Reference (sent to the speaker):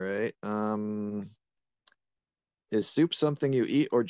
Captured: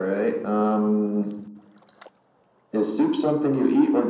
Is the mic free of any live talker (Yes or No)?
Yes